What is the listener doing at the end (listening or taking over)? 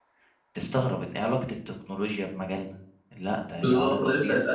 taking over